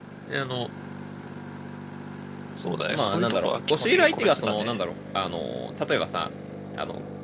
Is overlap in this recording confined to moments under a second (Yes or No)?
No